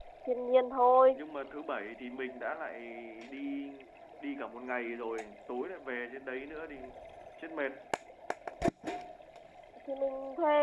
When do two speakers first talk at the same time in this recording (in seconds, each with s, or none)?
none